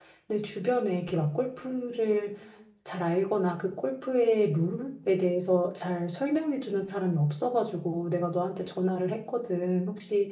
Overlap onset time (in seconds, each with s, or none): none